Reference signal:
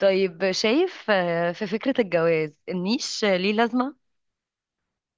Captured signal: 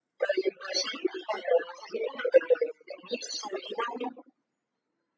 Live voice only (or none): none